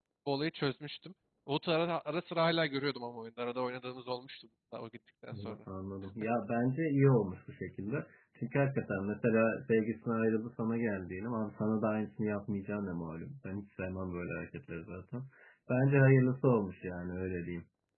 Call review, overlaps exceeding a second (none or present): none